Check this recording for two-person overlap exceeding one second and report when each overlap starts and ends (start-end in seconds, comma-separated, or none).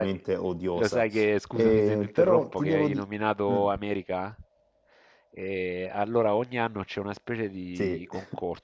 1.6-3.0